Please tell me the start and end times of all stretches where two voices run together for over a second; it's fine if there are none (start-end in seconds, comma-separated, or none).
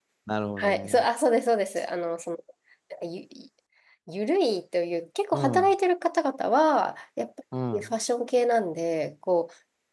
none